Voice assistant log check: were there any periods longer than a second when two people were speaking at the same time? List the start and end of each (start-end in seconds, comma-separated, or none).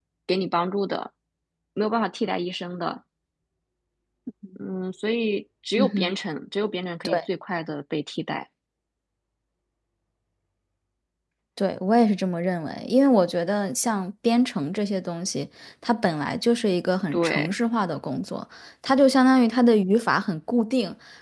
none